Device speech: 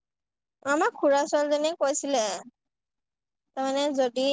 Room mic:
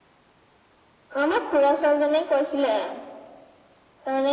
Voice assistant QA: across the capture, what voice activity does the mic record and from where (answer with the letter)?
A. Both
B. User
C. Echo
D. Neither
C